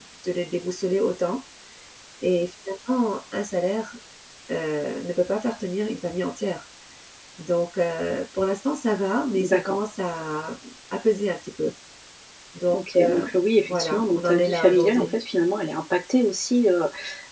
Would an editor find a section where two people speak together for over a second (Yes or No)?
Yes